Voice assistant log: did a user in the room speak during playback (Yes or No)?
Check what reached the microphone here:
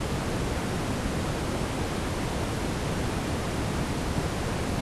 No